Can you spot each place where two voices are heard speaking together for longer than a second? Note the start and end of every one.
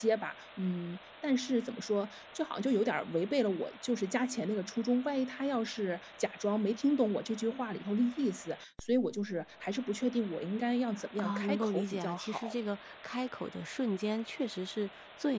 11.2-12.5

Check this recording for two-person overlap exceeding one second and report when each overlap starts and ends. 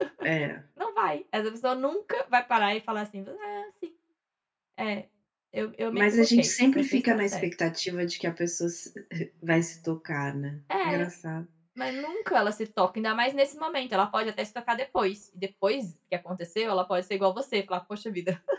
5.9-7.5

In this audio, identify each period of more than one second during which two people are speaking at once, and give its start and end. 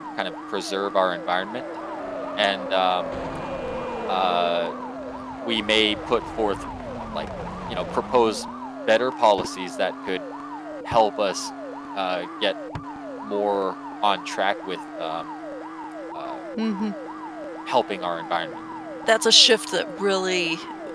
none

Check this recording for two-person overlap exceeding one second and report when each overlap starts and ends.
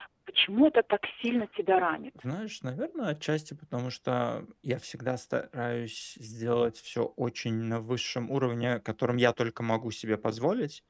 none

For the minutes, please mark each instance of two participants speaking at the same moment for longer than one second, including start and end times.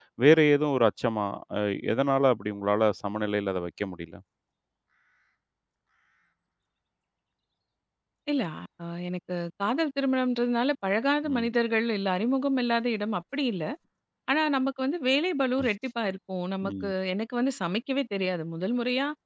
none

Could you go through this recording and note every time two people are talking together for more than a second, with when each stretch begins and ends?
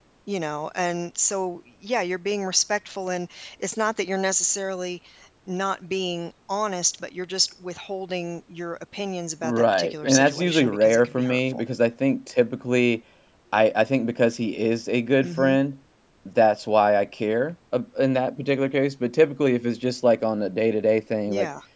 9.4-11.6

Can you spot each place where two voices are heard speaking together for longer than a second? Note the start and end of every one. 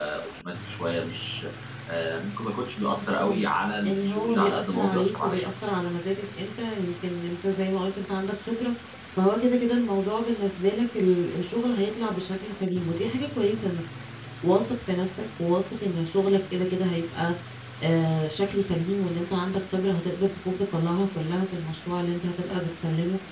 3.8-5.5

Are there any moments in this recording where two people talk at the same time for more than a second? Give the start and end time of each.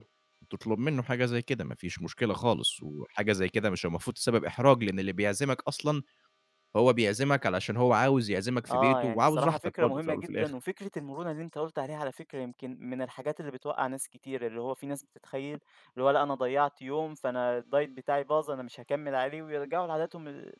8.7-10.5

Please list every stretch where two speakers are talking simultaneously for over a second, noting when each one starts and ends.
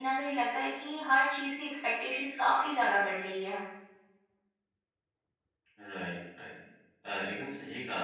none

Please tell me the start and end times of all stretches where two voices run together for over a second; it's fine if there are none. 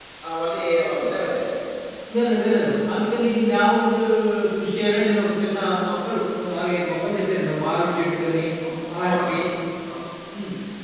none

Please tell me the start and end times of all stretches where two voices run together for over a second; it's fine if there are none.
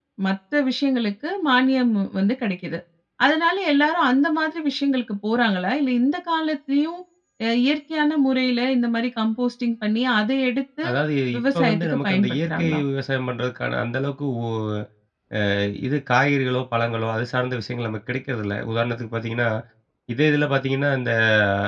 11.4-12.8

